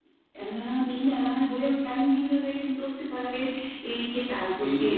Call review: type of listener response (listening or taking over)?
taking over